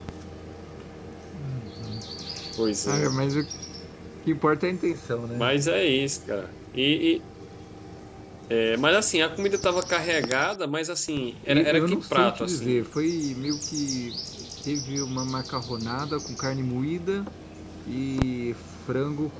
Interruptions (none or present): present